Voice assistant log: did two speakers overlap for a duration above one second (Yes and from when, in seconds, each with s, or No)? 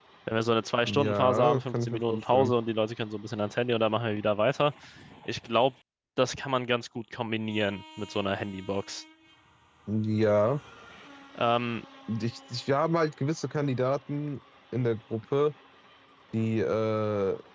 Yes, from 0.9 s